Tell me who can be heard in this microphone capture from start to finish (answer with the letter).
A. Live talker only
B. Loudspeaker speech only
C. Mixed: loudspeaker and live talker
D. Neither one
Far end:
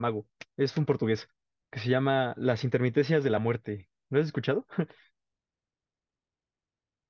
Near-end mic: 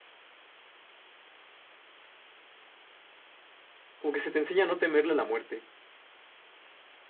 A